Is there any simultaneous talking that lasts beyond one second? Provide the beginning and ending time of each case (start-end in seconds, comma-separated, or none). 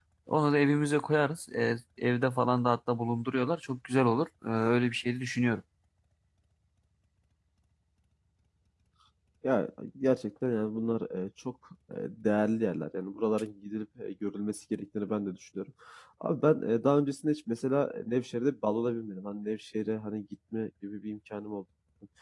none